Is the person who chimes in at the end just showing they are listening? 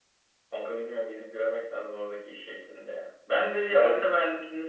Yes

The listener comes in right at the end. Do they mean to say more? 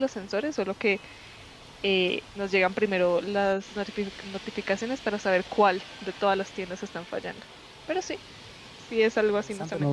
Yes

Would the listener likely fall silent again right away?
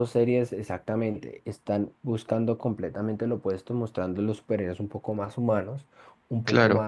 Yes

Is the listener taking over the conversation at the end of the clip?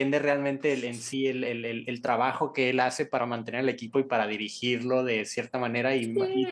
No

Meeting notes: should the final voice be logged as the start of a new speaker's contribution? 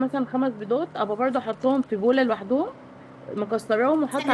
No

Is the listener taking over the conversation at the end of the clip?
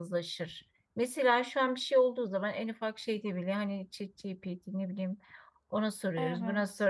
No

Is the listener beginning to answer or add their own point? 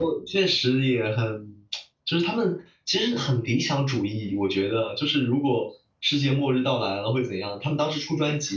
No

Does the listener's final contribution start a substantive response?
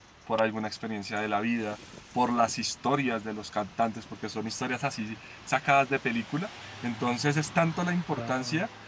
No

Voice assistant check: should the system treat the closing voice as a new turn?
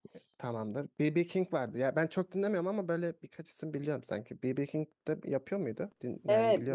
Yes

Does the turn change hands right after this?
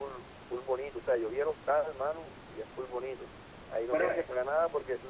No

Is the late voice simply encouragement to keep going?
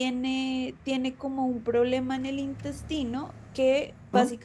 Yes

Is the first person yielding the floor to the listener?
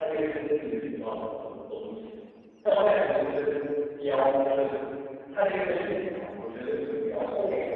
No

